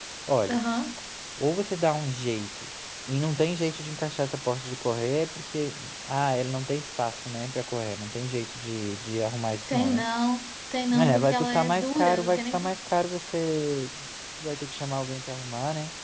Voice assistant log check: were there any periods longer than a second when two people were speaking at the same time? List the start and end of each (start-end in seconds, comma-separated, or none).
11.0-12.7